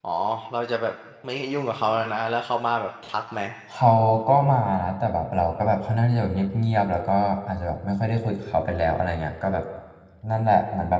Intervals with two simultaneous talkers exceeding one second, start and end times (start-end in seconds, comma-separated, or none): none